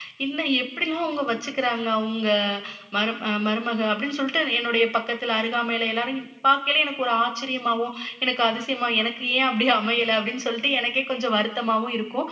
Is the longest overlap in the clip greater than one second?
No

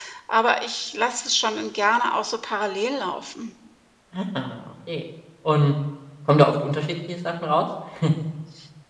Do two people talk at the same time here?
No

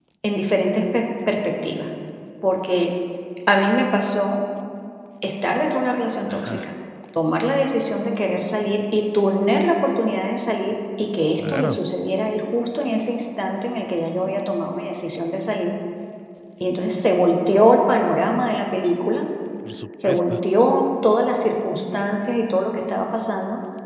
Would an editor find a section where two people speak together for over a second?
No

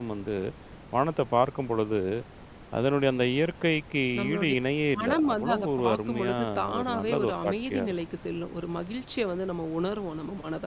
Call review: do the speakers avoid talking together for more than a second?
No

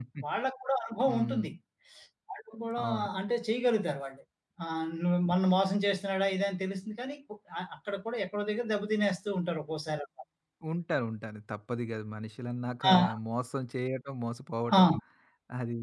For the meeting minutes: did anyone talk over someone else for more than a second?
No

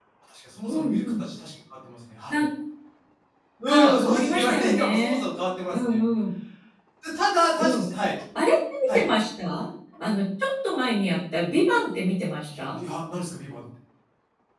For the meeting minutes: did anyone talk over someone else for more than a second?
Yes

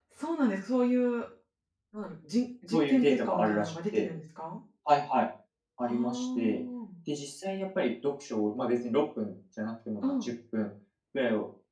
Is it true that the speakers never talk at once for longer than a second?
No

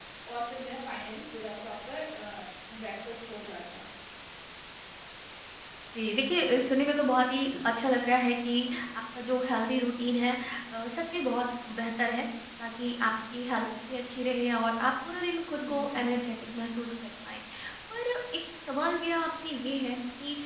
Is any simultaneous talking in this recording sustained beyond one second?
No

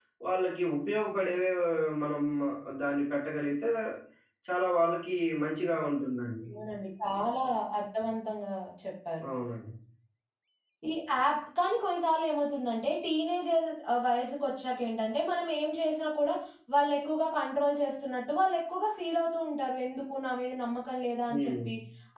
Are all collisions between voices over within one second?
Yes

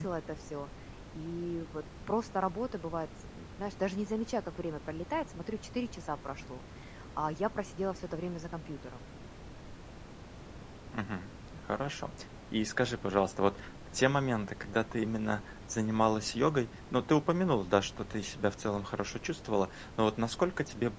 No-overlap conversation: Yes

